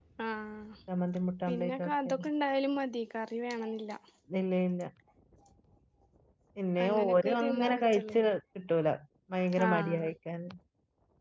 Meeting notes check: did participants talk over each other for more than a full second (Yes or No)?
Yes